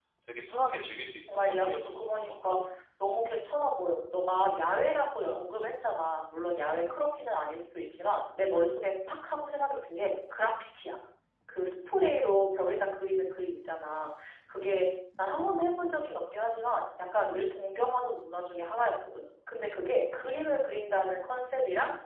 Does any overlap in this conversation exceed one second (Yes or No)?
Yes